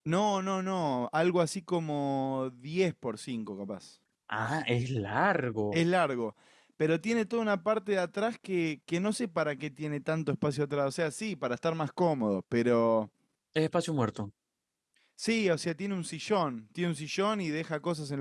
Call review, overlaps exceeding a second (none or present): none